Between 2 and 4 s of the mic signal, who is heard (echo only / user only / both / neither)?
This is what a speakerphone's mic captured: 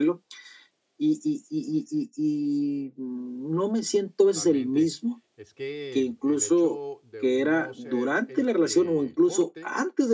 echo only